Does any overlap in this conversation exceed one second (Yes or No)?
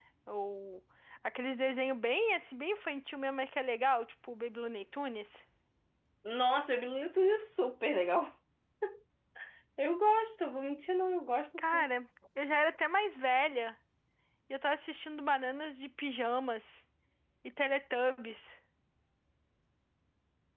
No